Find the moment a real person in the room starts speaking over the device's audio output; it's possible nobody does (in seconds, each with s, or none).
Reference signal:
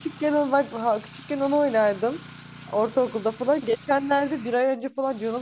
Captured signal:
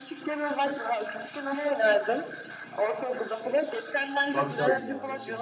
4.3 s